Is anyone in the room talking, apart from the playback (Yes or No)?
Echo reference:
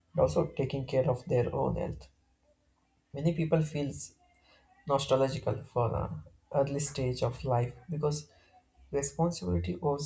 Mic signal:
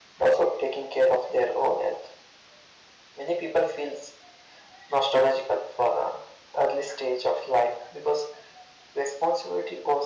No